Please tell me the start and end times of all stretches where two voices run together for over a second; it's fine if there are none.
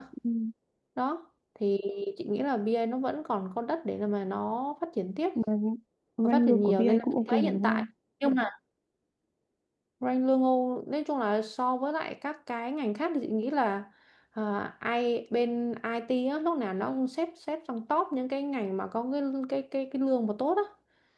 6.2-7.8

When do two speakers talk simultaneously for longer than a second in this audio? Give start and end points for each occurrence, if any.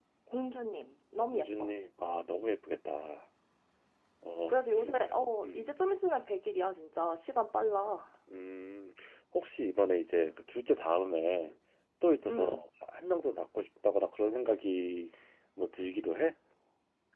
4.5-5.8

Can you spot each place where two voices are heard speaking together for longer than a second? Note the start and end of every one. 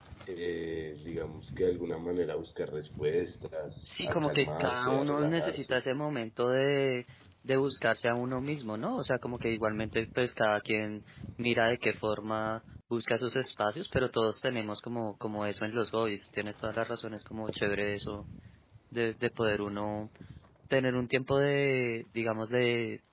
3.8-5.8

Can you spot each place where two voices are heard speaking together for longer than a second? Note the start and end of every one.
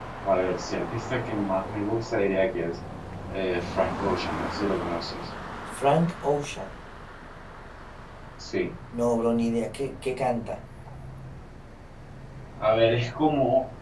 none

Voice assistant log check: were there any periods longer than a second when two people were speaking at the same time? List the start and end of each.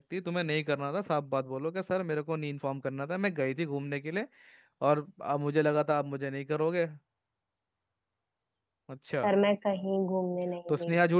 none

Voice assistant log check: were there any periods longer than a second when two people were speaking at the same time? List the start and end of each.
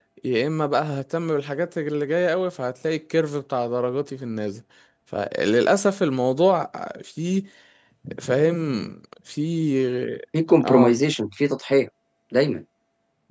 none

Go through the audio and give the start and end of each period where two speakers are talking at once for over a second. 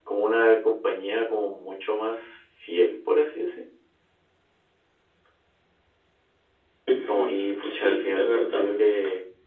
7.1-8.6

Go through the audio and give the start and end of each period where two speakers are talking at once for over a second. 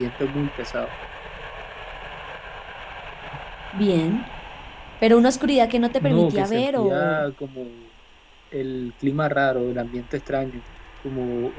6.0-7.2

